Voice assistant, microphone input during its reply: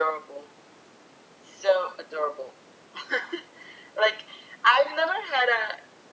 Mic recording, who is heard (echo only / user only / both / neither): echo only